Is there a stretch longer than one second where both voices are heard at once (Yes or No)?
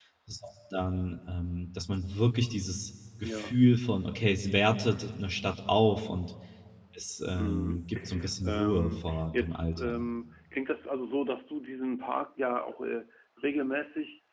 Yes